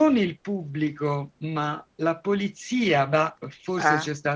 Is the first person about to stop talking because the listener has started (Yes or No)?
No